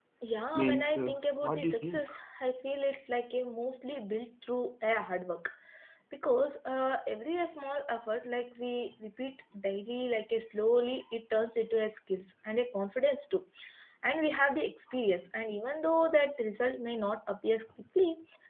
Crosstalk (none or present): present